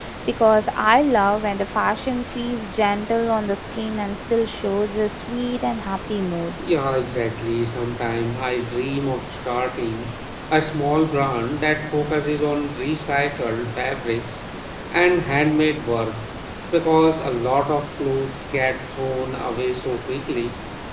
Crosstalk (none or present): none